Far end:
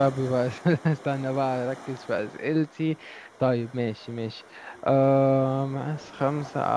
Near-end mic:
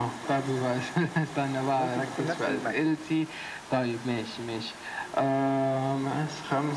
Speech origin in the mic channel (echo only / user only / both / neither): both